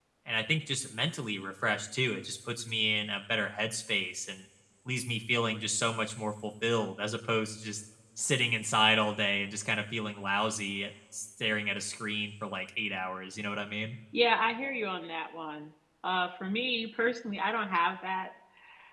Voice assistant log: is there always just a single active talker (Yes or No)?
Yes